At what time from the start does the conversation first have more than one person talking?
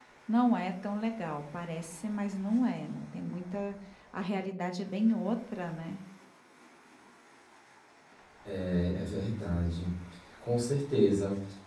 none

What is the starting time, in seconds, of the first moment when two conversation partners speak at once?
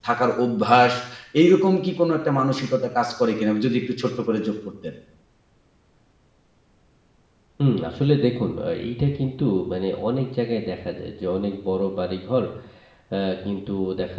none

